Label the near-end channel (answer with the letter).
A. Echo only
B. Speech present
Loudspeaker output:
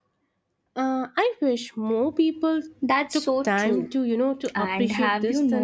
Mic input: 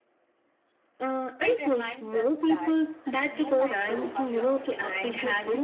B